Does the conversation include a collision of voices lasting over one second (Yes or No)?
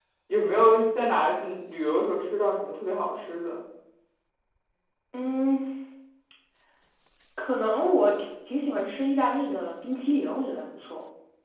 No